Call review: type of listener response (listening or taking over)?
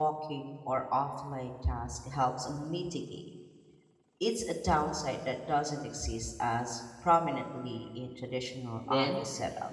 taking over